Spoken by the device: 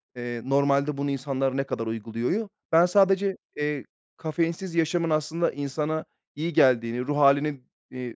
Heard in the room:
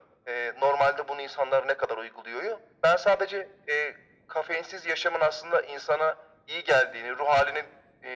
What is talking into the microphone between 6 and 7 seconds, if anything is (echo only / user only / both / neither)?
echo only